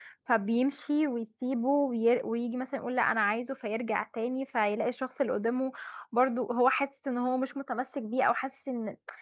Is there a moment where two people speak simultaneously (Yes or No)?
No